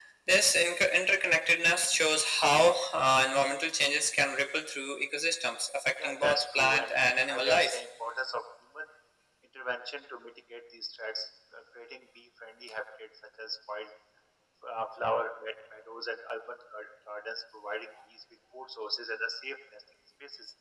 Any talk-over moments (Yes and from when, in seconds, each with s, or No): Yes, from 6.0 s